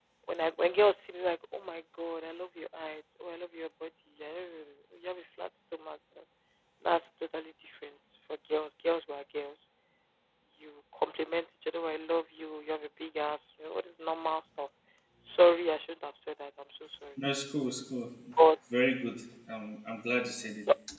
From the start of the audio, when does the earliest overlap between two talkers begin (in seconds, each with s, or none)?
none